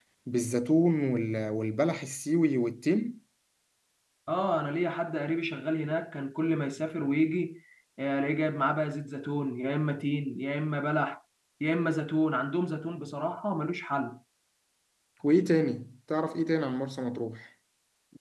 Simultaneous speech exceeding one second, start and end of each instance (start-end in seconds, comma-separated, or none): none